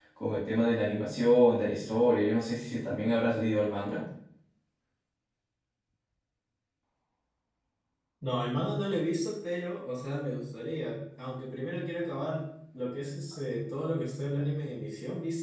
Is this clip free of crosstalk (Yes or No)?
Yes